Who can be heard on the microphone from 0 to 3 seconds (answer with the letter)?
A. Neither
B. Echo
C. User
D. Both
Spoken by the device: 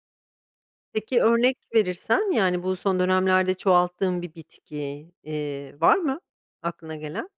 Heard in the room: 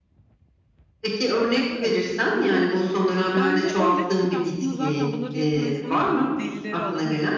D